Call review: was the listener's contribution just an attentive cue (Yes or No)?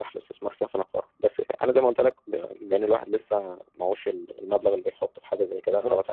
Yes